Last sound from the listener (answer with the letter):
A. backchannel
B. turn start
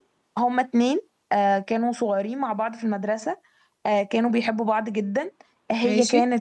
A